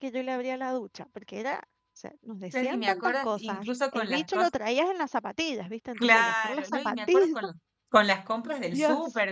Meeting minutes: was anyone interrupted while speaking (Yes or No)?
Yes